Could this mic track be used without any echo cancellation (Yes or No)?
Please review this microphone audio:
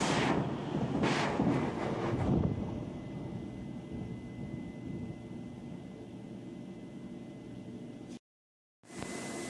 Yes